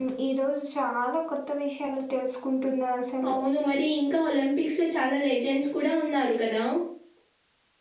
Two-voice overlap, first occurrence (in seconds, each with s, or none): none